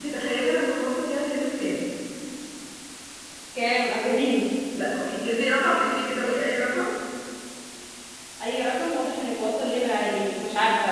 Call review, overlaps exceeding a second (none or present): none